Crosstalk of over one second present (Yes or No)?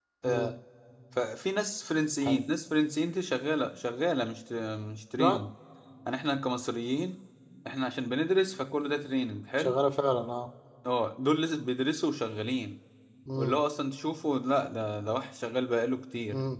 No